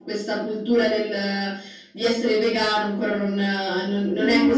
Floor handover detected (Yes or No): Yes